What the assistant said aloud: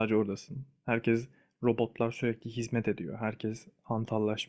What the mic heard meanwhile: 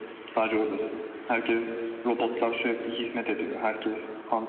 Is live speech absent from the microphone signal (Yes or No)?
Yes